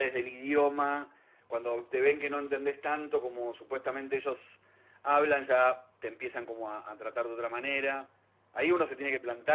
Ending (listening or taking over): listening